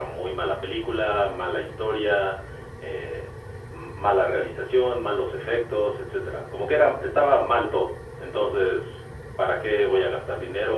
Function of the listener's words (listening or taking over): listening